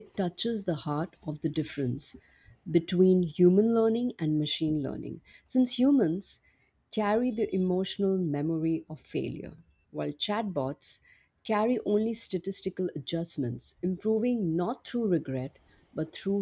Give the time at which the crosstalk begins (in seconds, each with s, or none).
none